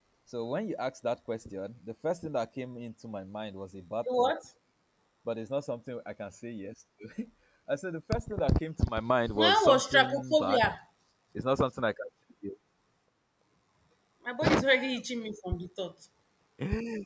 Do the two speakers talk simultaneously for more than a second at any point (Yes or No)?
Yes